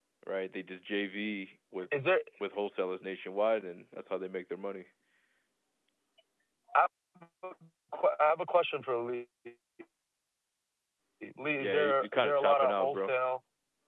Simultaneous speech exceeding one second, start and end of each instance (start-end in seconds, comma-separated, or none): 11.6-13.1